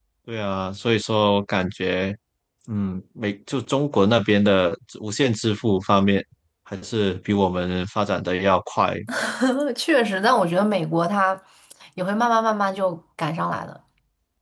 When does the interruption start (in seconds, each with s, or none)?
none